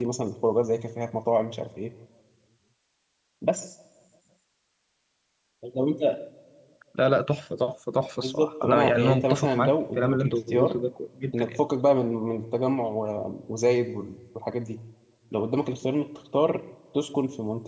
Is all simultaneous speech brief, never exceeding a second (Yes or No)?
No